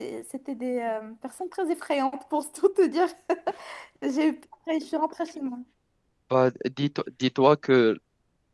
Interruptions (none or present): none